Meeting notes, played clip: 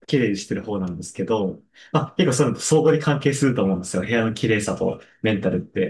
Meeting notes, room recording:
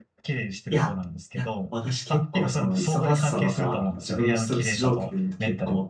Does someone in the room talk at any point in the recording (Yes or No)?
Yes